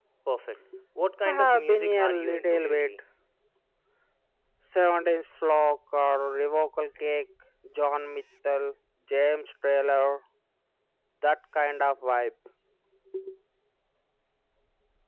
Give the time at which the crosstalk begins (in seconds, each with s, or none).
1.2 s